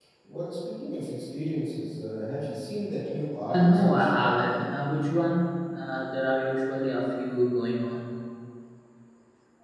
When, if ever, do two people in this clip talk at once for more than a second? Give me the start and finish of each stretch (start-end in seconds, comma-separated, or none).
3.5-4.7